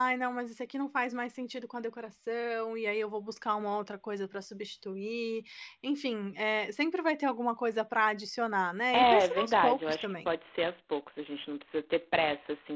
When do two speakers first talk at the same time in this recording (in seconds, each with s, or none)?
8.9 s